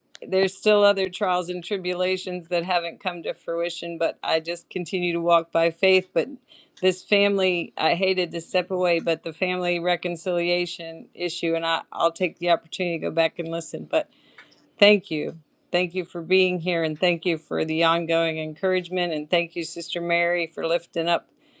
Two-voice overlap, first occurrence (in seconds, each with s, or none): none